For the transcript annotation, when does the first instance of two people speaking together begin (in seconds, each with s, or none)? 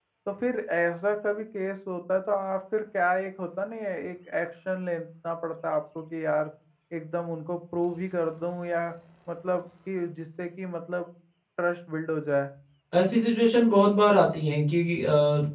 none